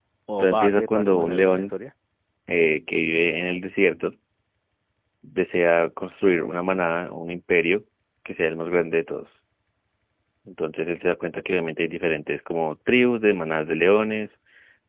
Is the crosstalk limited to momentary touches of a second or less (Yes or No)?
No